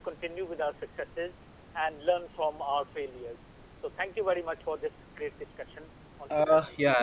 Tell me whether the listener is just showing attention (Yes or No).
No